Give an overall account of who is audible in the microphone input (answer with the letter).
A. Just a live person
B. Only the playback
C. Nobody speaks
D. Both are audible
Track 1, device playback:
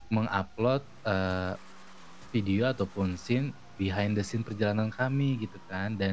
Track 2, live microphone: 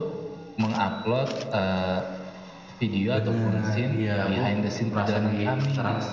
D